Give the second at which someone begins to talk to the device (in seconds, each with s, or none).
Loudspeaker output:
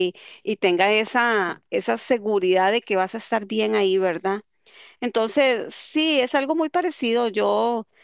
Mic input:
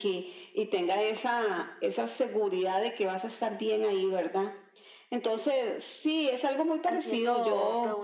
6.9 s